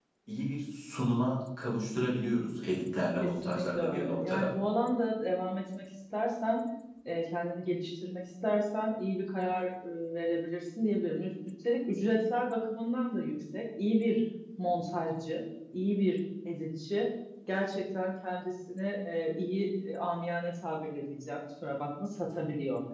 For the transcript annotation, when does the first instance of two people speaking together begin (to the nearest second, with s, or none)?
3 s